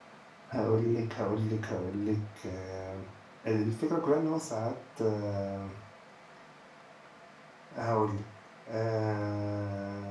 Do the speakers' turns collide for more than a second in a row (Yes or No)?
No